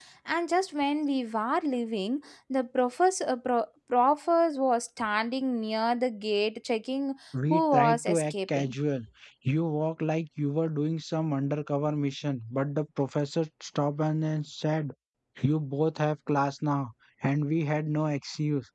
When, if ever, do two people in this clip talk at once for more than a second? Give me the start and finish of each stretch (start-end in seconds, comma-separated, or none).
7.5-8.7